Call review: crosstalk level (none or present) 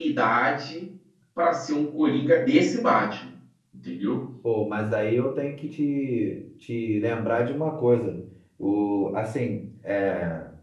none